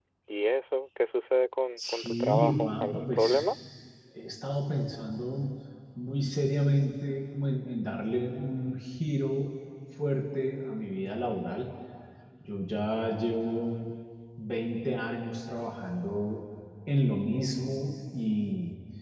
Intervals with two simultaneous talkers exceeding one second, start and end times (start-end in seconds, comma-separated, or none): 1.8-3.4